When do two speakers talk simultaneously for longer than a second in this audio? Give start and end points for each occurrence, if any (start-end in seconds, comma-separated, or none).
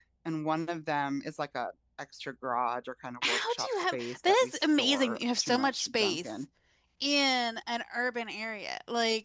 3.3-6.3